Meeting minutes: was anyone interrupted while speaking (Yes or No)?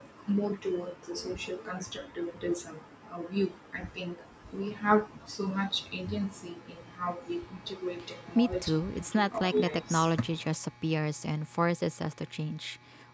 Yes